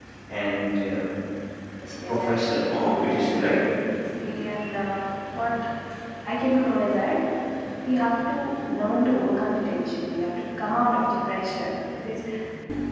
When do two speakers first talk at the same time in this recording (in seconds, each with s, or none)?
2.1 s